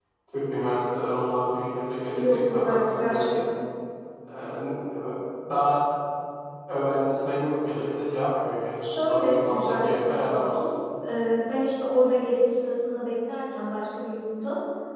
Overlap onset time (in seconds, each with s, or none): 2.1 s